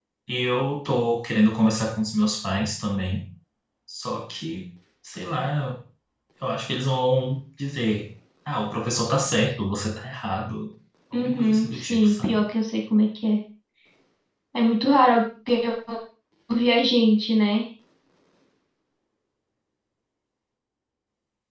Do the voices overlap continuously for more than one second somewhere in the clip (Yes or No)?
Yes